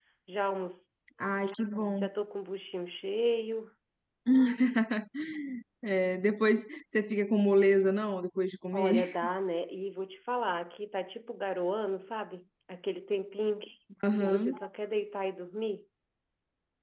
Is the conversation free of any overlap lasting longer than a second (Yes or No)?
Yes